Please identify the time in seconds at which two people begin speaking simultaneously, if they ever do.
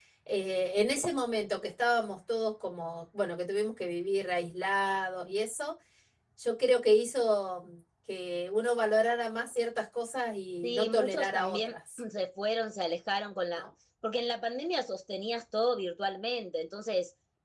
10.6 s

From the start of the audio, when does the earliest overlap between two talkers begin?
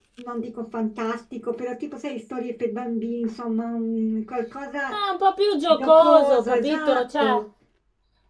5.7 s

